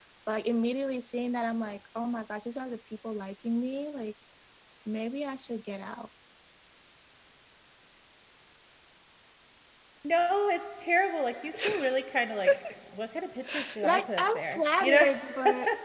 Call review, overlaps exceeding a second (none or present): present